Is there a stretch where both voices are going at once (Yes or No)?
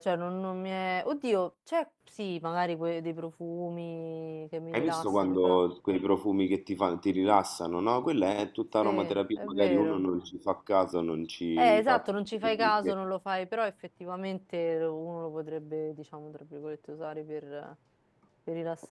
Yes